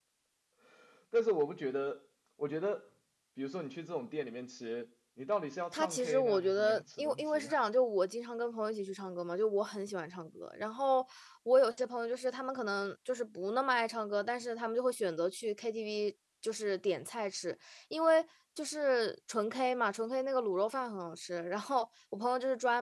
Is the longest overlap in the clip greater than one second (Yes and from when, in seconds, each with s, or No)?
Yes, from 5.7 s